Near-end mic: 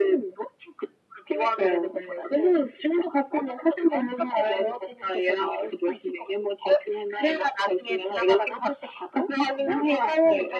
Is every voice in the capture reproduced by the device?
Yes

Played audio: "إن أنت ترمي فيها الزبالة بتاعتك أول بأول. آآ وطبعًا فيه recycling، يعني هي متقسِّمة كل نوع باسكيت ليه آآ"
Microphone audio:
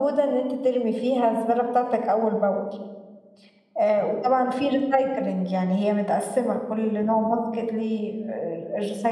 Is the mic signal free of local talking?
Yes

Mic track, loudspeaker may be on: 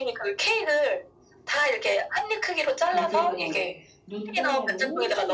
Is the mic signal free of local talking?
No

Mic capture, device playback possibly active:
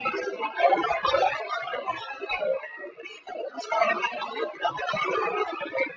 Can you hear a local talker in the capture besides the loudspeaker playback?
No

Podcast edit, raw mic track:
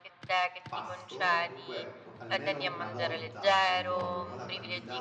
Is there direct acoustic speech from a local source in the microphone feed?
Yes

